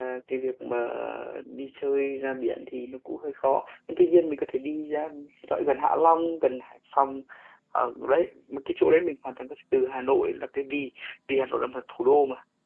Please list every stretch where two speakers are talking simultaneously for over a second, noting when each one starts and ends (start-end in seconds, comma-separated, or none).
none